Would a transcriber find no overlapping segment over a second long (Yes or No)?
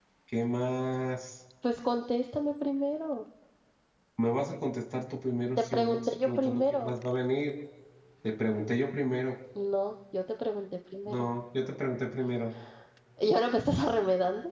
No